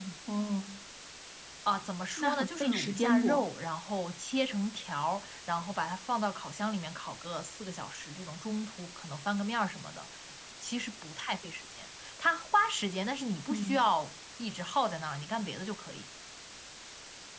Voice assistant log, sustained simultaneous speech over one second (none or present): present